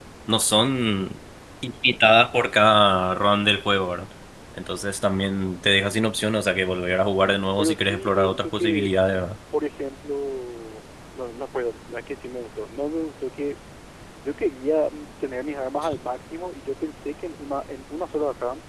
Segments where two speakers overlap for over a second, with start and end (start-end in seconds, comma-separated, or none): 7.6-8.9